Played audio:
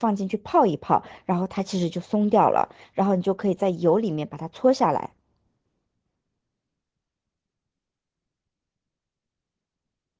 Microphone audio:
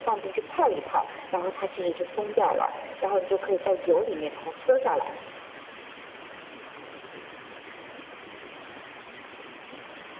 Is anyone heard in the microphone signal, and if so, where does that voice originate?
echo only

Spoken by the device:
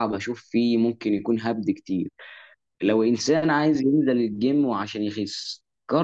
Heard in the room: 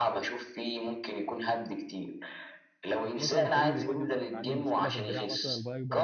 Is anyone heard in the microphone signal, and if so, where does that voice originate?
both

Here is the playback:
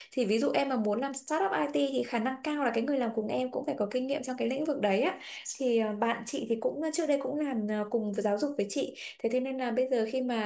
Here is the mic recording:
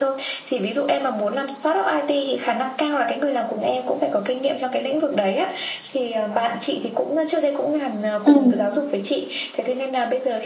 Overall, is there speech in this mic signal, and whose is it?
both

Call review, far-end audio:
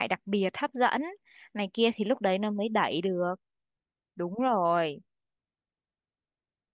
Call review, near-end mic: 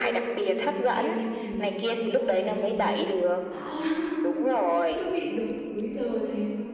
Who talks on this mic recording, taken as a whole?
both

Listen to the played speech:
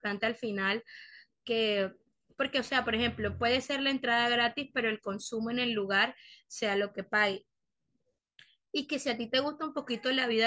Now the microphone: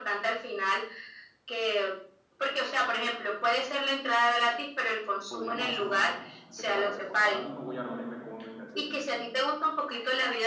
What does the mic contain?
both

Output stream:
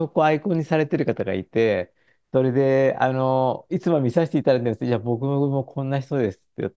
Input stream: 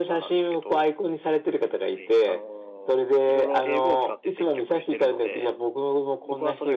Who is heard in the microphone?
both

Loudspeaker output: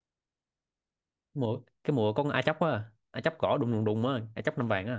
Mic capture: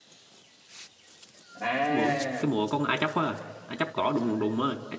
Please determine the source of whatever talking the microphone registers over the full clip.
both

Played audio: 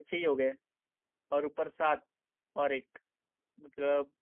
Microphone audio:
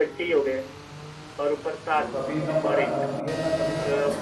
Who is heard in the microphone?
both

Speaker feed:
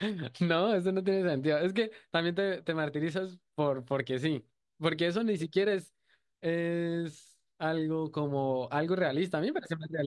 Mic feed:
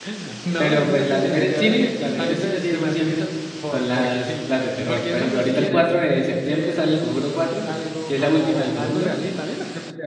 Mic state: both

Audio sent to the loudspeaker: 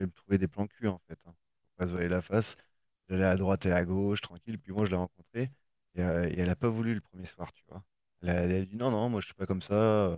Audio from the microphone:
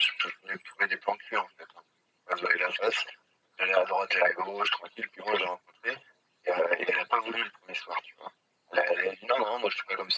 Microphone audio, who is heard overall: echo only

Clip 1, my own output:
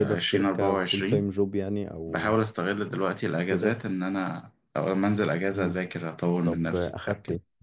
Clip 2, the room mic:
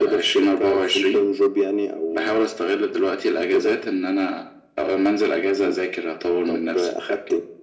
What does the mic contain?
echo only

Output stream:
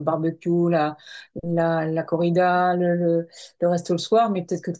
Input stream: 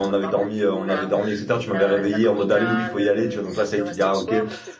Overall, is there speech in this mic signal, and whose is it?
both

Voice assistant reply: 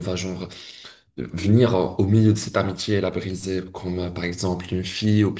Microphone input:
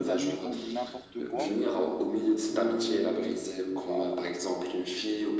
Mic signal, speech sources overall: both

